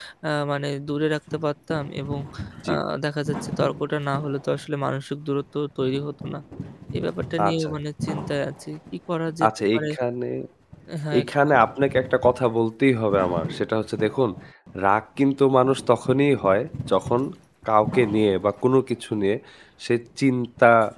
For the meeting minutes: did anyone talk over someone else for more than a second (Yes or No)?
No